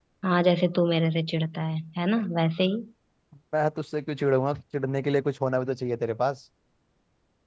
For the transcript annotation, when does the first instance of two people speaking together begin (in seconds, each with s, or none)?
none